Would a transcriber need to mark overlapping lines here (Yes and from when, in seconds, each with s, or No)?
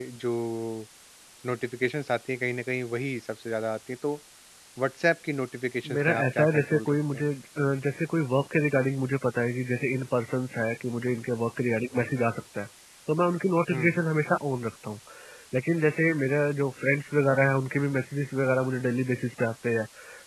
Yes, from 5.8 s